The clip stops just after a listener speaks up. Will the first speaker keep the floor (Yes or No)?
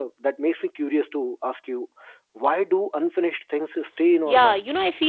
No